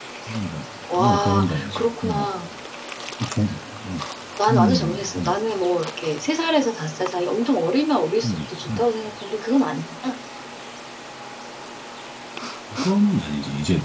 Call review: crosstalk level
present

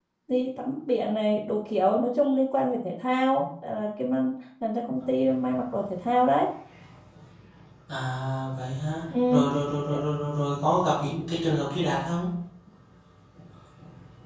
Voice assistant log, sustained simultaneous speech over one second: none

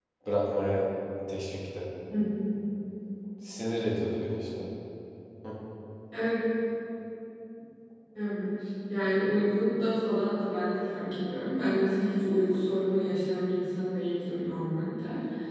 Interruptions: none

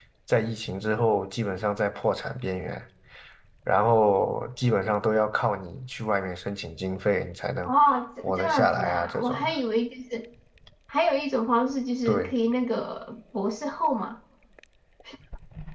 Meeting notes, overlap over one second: present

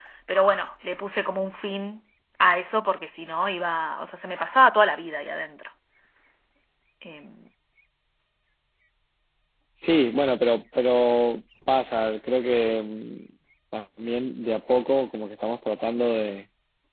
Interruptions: none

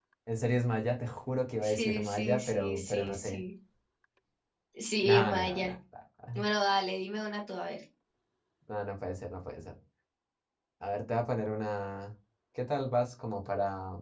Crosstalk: present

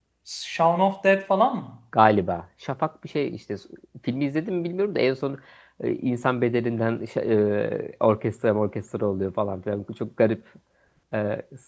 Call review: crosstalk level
none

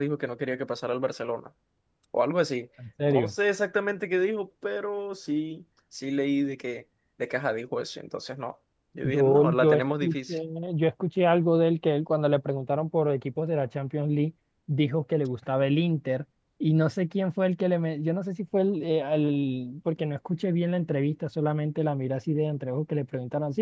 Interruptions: present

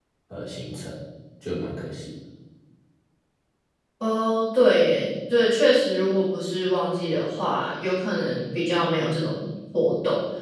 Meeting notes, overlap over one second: none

